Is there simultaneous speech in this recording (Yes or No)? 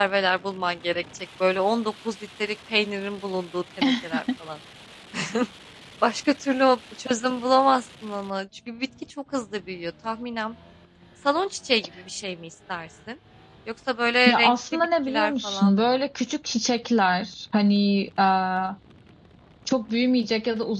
Yes